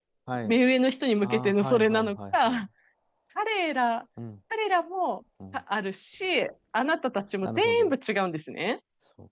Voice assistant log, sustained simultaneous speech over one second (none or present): present